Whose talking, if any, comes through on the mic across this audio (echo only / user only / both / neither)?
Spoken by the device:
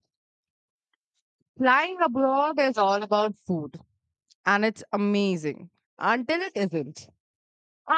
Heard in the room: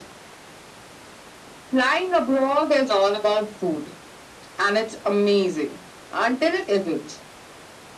echo only